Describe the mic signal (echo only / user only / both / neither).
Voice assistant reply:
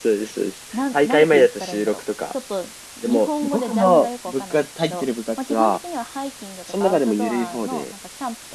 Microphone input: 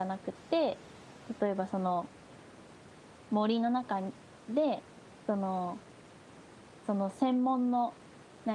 user only